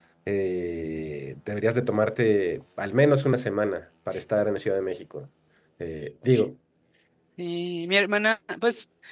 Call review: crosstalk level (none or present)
none